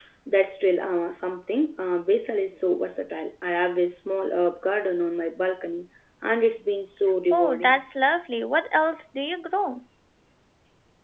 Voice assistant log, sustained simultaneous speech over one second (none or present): none